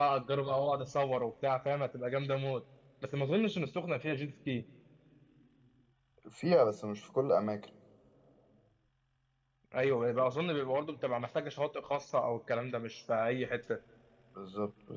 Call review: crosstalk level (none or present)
none